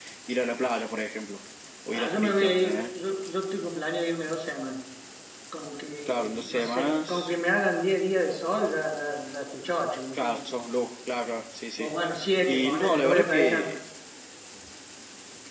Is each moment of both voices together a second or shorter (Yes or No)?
No